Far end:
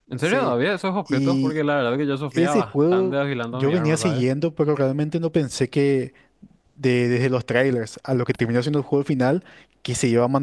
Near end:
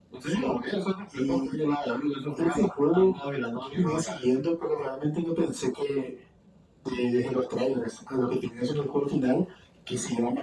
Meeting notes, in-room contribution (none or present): none